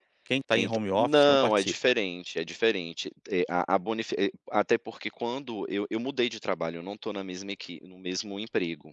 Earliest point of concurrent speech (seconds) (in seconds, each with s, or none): 0.5 s